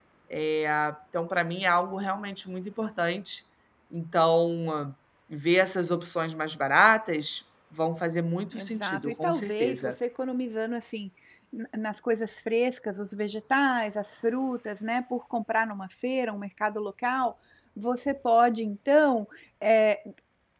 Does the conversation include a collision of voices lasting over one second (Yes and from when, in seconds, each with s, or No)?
Yes, from 8.5 s